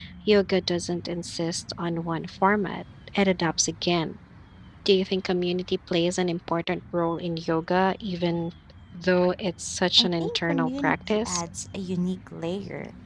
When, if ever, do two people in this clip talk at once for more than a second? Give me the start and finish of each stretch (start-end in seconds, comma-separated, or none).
10.0-11.4